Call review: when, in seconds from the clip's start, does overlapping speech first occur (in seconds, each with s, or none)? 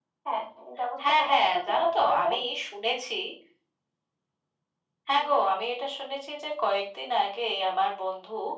1.1 s